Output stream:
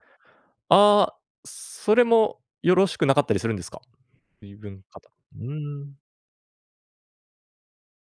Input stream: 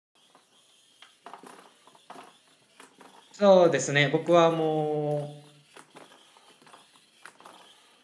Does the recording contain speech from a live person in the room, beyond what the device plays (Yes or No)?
Yes